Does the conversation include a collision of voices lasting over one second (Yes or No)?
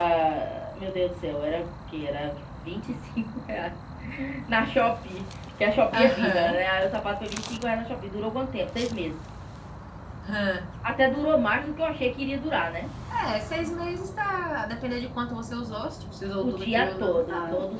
Yes